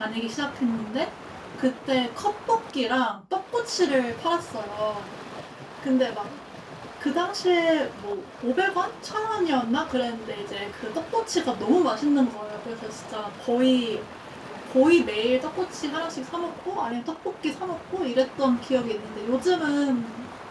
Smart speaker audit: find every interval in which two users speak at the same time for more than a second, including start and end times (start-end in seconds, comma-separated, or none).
none